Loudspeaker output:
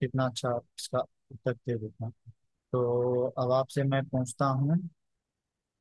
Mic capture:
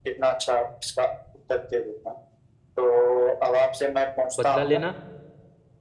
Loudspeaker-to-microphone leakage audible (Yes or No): Yes